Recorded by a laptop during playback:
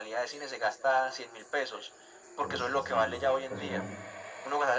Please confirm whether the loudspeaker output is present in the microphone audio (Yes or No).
Yes